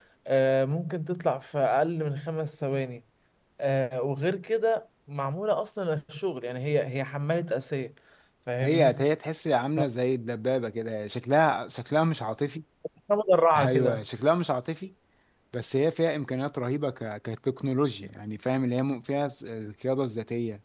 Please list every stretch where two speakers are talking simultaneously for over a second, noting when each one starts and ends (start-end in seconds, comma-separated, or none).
none